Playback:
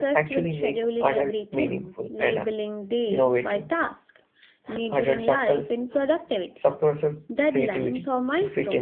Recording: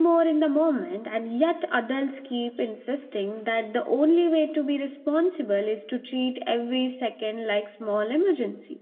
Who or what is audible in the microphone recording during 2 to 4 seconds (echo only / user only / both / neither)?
user only